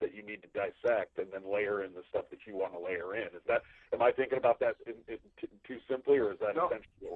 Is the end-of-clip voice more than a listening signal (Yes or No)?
Yes